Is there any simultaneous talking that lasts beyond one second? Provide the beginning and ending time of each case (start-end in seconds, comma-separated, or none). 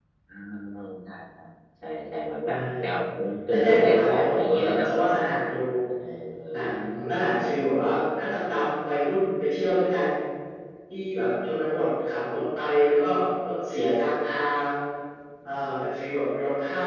3.5-4.9